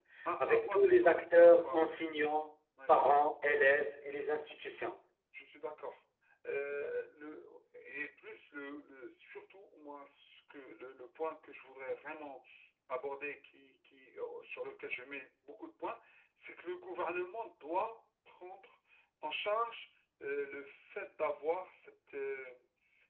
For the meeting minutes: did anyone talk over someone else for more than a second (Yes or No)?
Yes